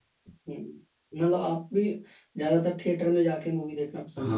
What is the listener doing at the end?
taking over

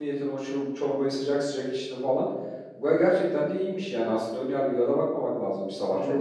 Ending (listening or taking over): taking over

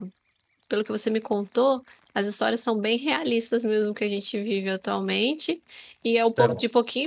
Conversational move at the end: listening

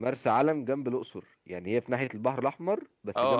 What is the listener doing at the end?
taking over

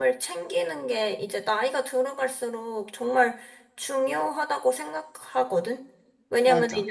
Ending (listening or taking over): listening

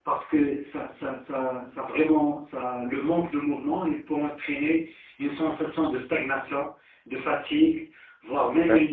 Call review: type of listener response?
listening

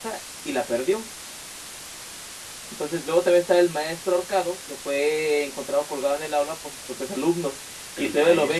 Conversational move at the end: listening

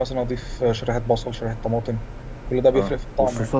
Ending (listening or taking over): taking over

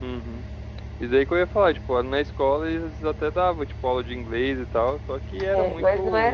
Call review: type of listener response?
taking over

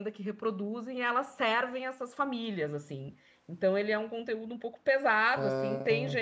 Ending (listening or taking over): listening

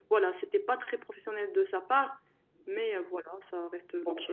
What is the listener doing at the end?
taking over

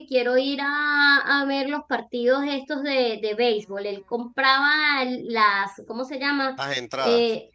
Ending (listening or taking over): listening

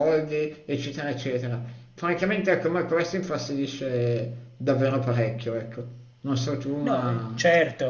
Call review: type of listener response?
taking over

